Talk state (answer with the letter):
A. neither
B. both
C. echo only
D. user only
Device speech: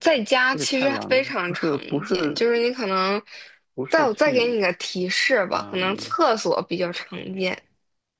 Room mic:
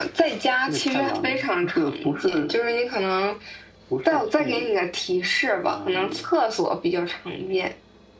C